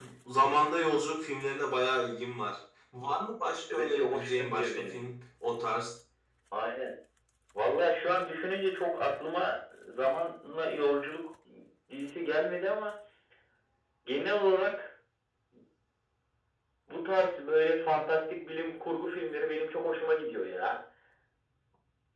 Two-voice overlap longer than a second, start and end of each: 3.7-5.1

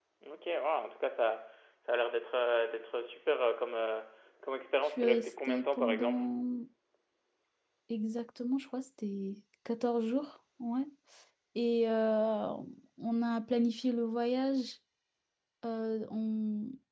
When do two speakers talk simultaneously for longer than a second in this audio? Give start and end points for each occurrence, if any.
4.8-6.2

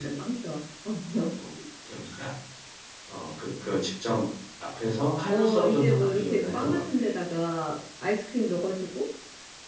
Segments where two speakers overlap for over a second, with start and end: 5.3-6.8

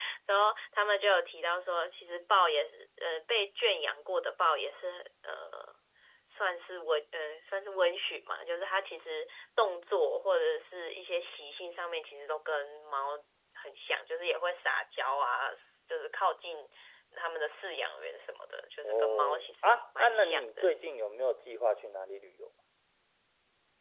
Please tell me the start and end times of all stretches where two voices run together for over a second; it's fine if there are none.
18.8-20.8

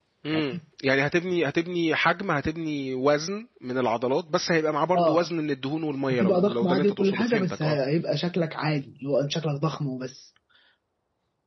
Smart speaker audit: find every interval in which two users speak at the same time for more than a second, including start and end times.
6.1-7.8

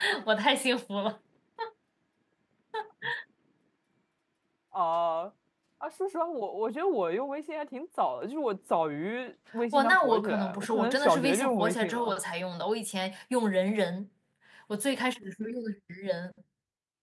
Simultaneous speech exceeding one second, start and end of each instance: 9.7-12.2

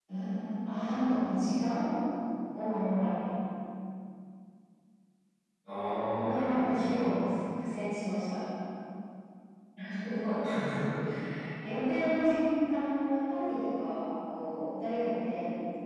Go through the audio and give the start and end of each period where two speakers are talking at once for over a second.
6.1-7.4

